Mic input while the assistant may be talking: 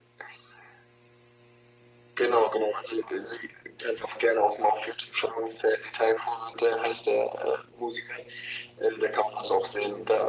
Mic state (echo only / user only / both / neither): echo only